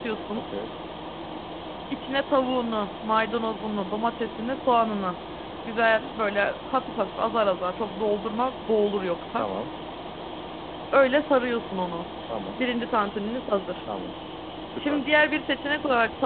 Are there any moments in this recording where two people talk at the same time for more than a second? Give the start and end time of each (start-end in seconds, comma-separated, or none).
none